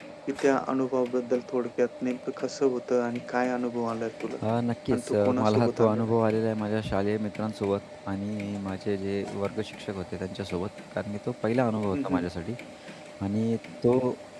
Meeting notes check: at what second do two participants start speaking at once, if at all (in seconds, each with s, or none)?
4.9 s